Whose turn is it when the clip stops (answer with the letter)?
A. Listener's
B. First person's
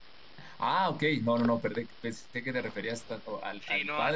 A